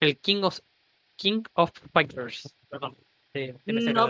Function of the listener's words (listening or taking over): taking over